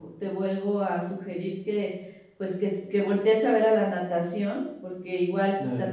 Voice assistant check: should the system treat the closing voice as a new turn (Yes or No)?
No